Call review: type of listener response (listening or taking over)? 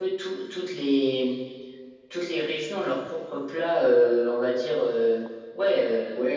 taking over